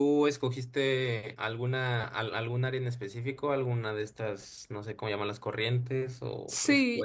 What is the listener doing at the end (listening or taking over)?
taking over